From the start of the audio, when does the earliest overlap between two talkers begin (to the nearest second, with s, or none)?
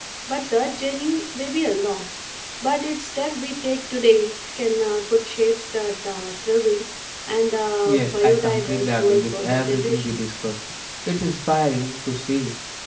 8 s